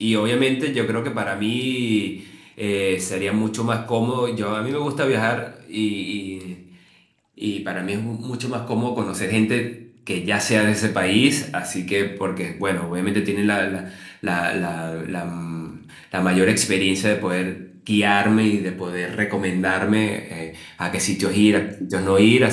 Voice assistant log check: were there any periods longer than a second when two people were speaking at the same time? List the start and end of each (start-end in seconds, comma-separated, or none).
none